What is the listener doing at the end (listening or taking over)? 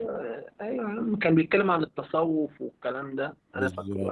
listening